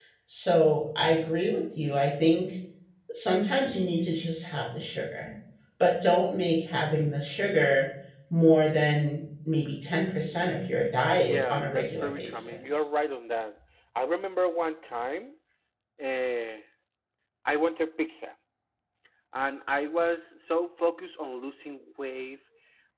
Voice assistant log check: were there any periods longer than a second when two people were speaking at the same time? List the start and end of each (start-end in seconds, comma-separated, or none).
11.2-12.8